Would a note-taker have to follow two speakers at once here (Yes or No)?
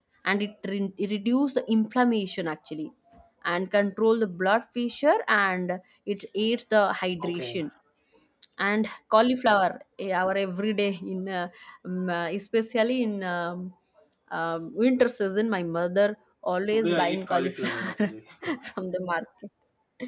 Yes